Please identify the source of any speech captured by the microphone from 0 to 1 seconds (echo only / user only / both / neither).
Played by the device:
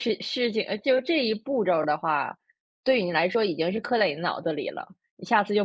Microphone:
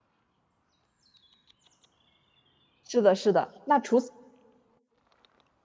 neither